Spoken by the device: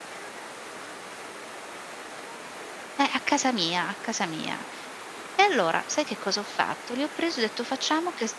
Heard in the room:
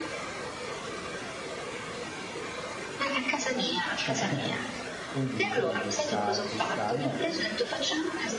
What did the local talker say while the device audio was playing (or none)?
Cioè quindi quindi questa questa no dis